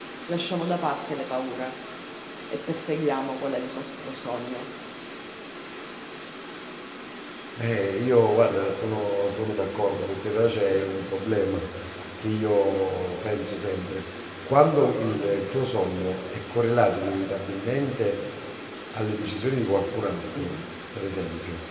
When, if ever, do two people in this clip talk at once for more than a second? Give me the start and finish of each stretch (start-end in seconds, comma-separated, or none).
none